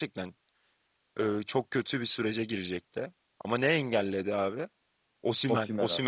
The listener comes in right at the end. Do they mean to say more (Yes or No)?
No